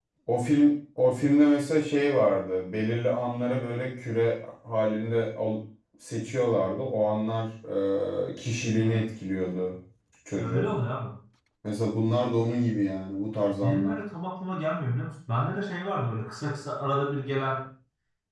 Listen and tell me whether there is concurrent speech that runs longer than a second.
No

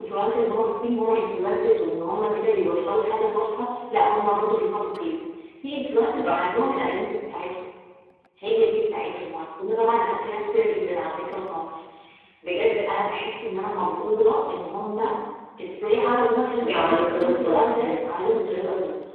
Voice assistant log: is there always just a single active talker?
No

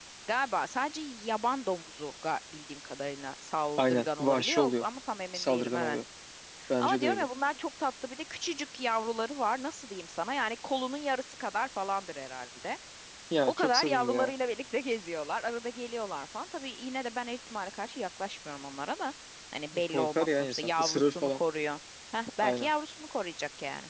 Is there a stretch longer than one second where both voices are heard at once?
Yes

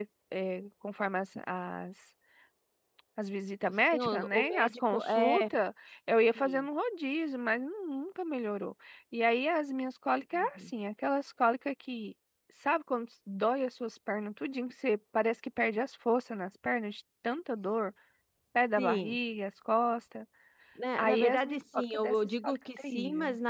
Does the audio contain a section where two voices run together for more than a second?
Yes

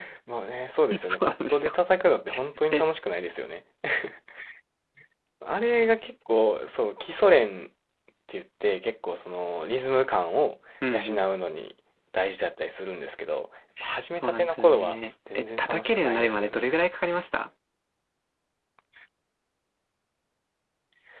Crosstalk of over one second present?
Yes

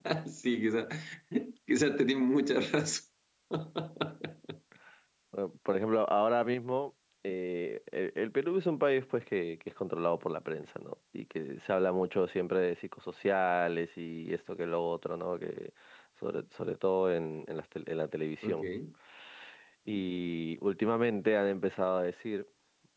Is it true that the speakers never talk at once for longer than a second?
Yes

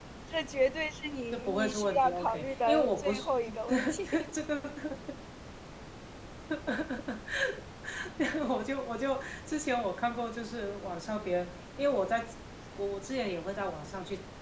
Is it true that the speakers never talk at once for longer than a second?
No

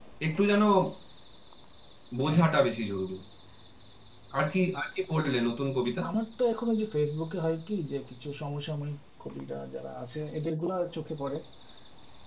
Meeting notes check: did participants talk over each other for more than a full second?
No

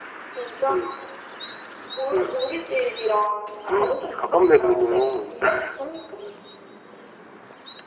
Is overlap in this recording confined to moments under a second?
No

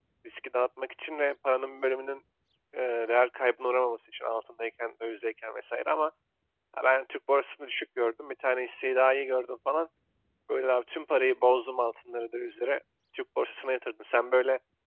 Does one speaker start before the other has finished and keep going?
No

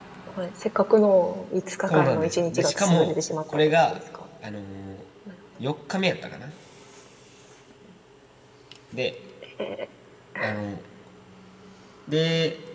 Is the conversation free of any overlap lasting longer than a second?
No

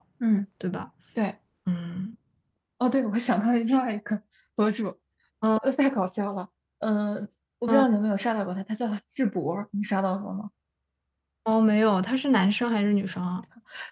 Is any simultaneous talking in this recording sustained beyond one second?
No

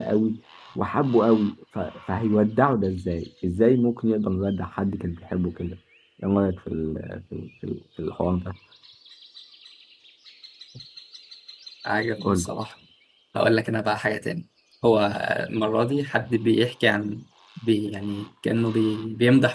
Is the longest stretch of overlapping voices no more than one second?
Yes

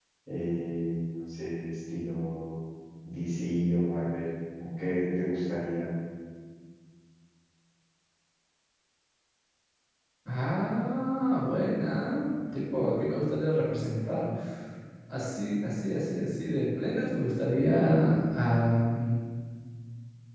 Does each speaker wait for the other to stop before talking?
Yes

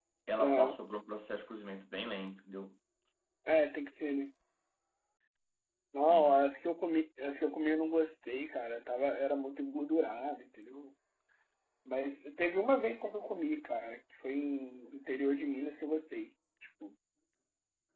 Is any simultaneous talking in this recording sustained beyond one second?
No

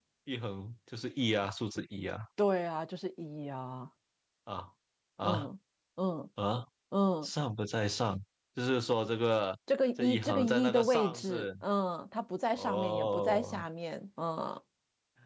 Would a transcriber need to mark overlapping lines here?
Yes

